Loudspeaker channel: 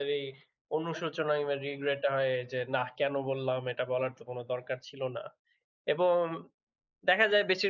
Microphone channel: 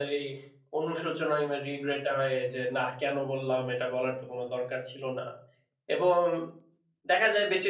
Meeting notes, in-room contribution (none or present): none